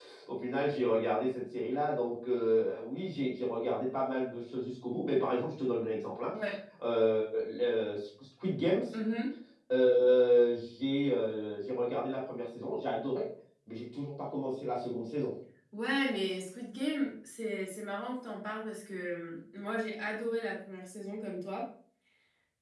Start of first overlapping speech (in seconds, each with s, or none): none